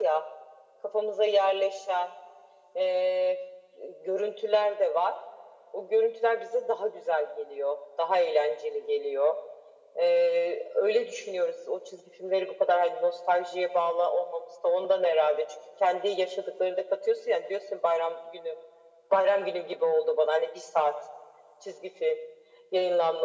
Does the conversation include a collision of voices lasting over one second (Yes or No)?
No